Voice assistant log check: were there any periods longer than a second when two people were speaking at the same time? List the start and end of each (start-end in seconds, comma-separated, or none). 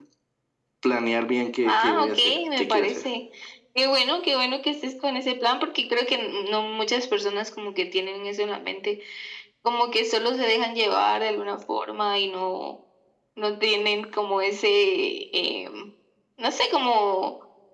1.6-3.0